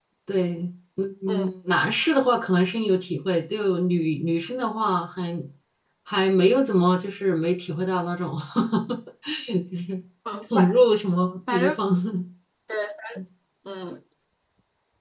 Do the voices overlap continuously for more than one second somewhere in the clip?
No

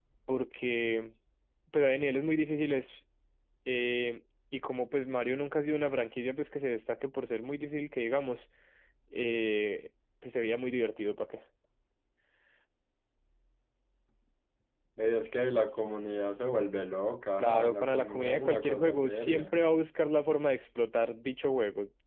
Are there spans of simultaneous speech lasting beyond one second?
Yes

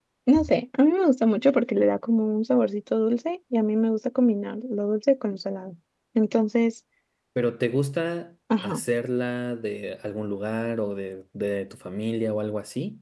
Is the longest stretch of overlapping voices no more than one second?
Yes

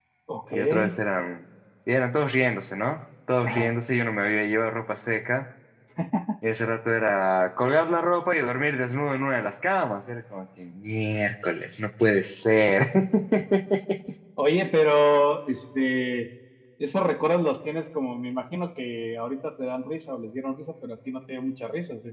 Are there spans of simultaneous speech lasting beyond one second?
No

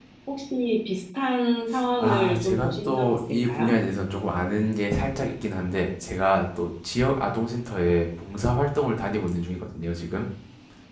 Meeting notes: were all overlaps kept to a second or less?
No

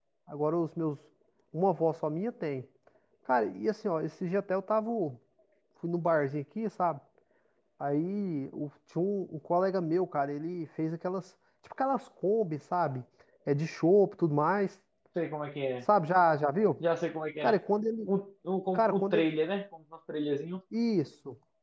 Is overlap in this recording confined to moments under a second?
Yes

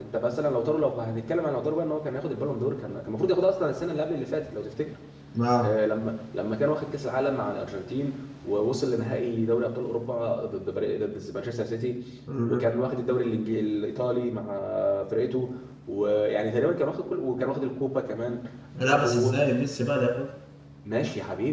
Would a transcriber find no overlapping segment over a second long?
Yes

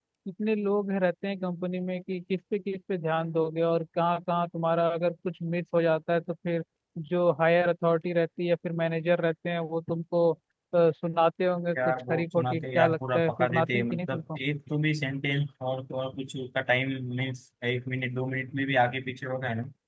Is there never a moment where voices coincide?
No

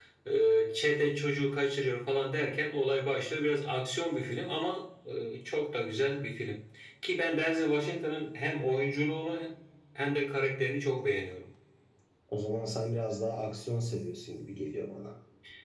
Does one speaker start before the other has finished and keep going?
No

